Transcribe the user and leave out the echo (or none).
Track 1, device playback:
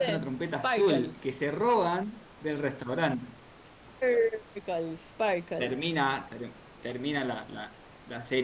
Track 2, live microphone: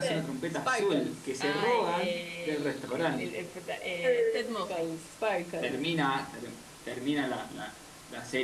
Ay, el, el- el- el prota- eh, Ted Mosby.